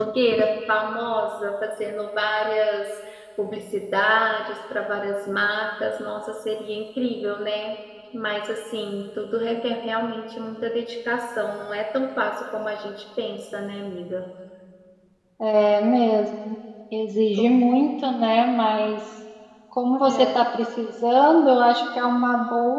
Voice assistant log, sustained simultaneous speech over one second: none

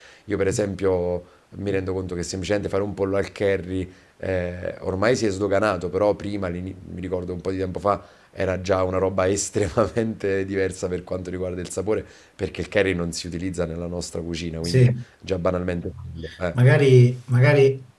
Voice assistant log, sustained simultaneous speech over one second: none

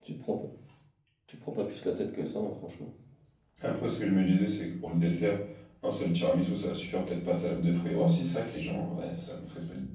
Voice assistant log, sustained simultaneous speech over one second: none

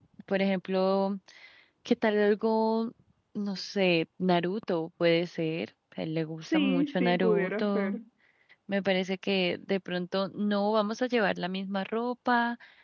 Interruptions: present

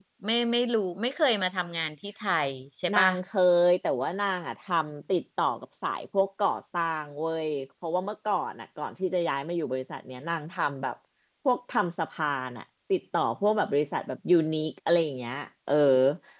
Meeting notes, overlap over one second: none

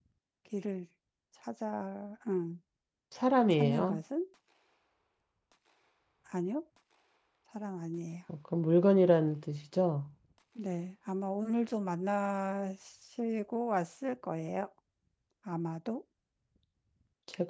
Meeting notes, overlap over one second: none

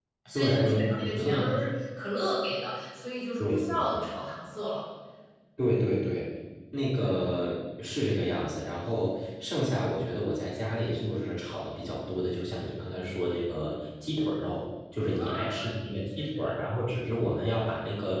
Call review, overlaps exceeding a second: present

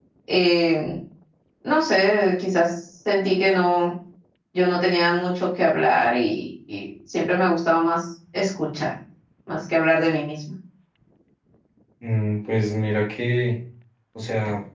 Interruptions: none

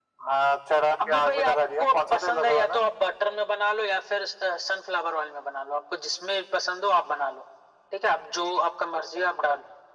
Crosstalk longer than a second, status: present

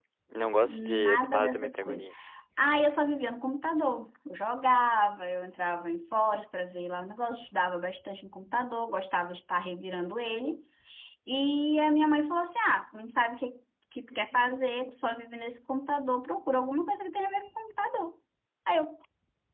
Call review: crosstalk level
present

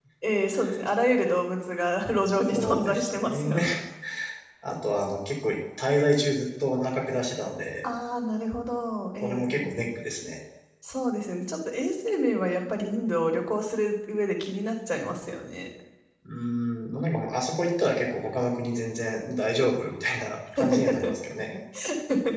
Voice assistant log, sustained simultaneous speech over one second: present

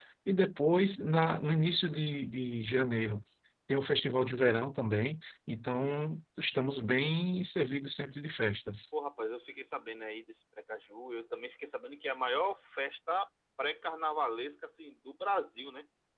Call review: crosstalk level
none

